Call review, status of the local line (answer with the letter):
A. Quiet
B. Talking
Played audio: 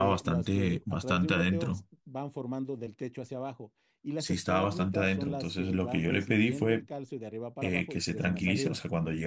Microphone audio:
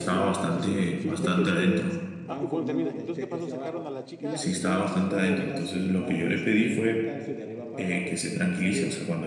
B